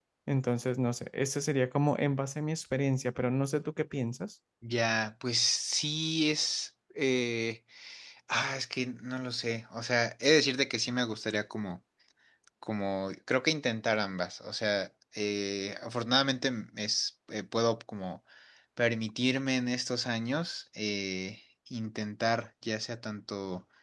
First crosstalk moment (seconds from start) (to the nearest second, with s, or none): none